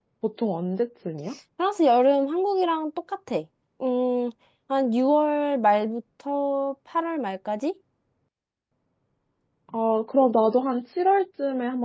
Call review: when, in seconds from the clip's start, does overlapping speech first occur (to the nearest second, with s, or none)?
none